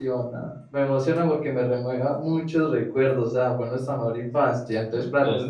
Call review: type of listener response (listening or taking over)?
listening